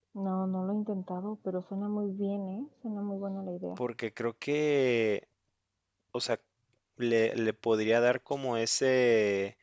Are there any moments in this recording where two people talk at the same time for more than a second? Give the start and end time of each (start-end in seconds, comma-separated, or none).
none